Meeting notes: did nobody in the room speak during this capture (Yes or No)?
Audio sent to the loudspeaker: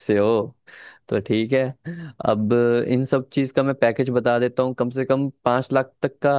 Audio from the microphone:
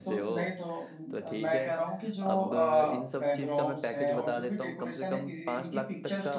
No